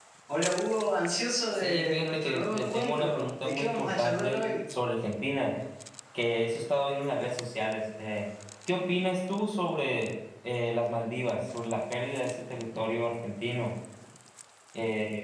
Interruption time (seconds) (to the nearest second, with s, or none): 2 s